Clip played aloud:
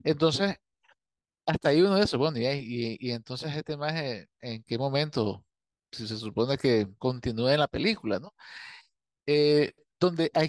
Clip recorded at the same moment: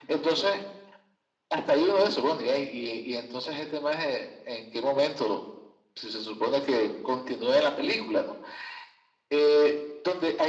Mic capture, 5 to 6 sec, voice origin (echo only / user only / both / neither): echo only